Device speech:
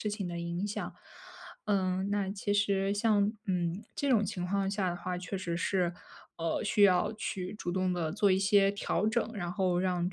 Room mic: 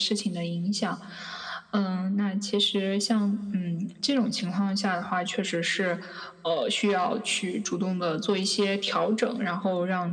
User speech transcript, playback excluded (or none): none